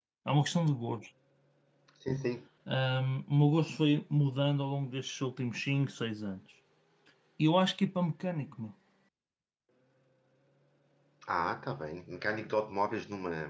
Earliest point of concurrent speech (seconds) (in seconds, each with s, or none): none